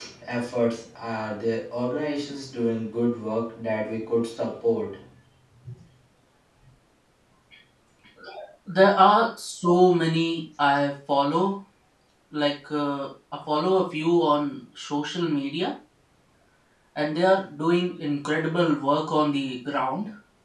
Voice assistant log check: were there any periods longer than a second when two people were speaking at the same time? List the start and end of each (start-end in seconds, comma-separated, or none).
none